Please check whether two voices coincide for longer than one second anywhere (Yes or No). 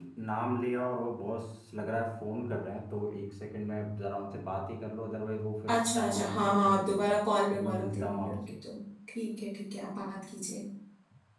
Yes